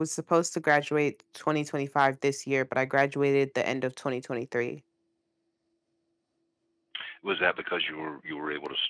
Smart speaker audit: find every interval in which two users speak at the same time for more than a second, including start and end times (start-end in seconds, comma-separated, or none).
none